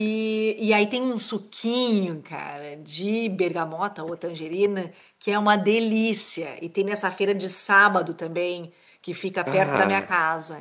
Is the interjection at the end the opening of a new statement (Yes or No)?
No